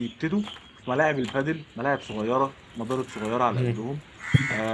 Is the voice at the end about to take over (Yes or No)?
No